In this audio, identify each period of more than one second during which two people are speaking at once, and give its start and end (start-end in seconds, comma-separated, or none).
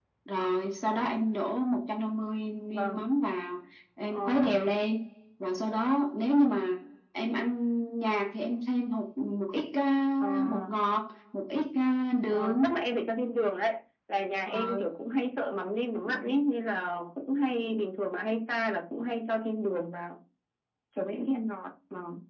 none